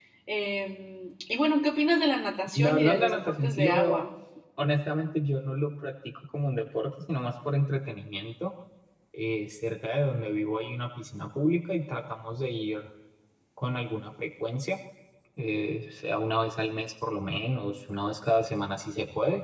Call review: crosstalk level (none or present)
present